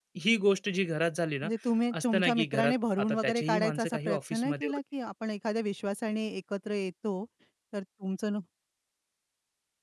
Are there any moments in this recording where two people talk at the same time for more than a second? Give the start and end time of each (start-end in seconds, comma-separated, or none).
2.0-4.8